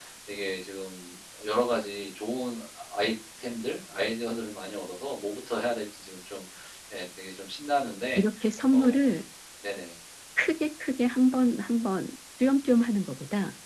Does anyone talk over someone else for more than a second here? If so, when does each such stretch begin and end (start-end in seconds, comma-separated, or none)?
none